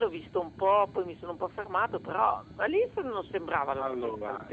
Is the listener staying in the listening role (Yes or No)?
No